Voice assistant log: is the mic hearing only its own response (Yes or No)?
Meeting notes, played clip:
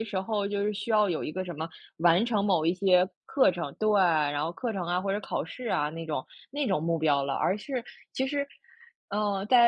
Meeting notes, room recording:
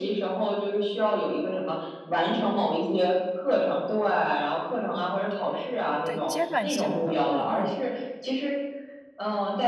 No